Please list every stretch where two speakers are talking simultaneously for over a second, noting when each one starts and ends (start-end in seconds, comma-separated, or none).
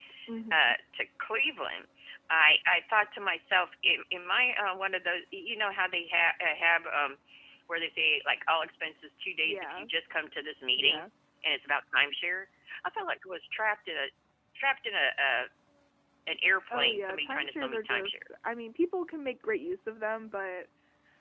16.7-18.2